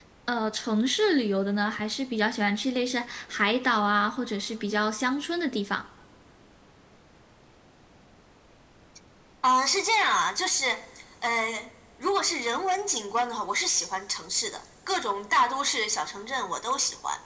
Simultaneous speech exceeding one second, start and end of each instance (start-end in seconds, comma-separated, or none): none